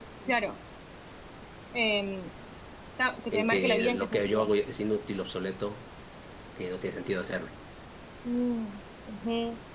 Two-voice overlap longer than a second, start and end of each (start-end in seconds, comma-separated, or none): 3.3-4.5